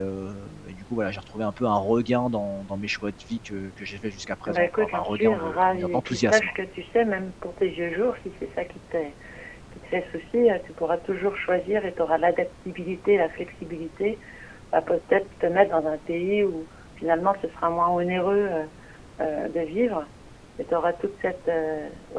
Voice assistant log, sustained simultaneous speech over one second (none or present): present